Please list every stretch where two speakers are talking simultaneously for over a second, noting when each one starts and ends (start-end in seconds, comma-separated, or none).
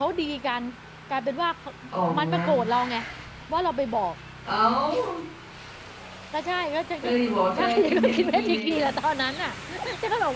7.6-8.8